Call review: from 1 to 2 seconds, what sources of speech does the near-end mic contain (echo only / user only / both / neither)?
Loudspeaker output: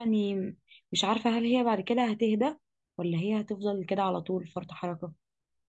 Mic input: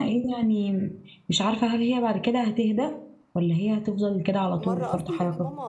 echo only